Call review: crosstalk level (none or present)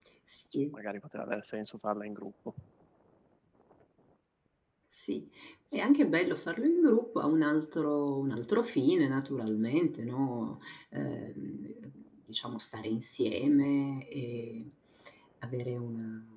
none